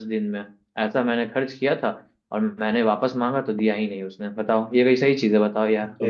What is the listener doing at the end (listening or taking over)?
taking over